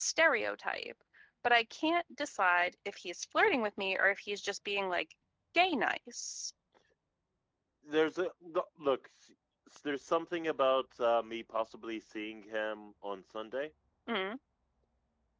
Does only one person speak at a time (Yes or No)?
Yes